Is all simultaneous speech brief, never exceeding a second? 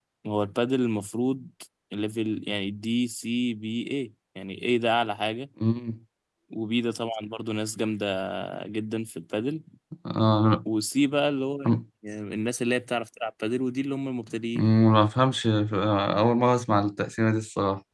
Yes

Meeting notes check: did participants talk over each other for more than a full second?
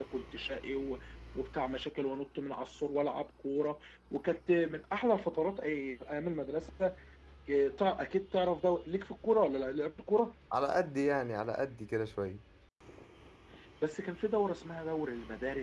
No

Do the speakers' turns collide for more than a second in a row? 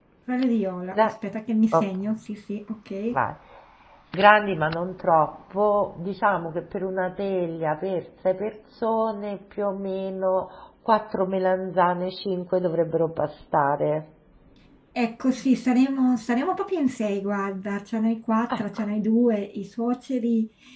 No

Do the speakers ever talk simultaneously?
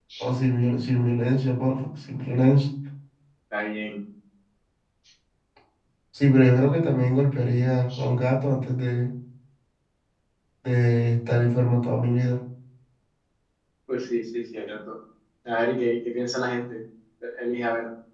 No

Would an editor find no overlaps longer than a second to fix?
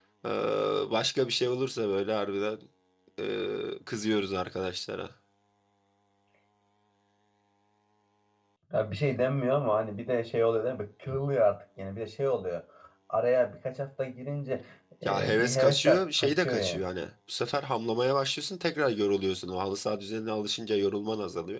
No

